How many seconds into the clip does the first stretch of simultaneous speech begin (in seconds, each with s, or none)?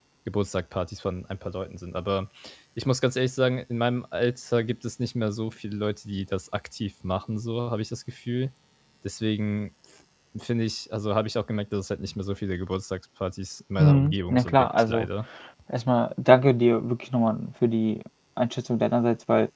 13.8 s